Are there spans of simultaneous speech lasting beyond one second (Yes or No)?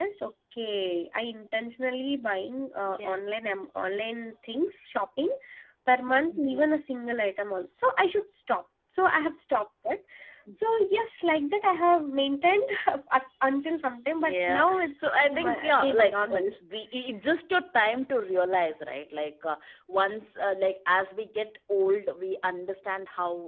Yes